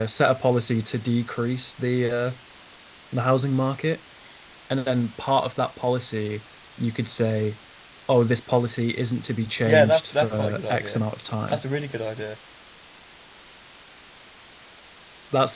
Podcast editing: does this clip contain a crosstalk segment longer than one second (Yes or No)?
Yes